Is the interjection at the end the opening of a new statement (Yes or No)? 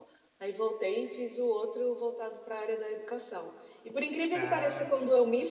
No